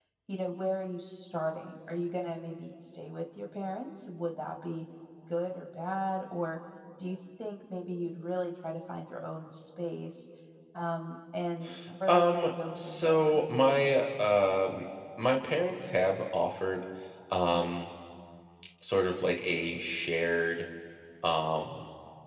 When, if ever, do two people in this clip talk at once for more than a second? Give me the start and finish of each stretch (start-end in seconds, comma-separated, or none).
12.1-13.4